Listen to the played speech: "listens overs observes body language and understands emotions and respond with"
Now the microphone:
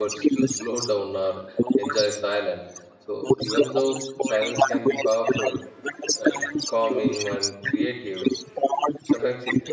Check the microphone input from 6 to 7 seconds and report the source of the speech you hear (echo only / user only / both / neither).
both